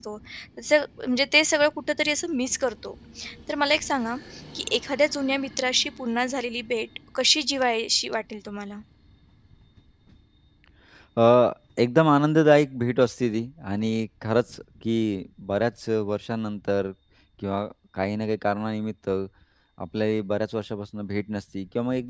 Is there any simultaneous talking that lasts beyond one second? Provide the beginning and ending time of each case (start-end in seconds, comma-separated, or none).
none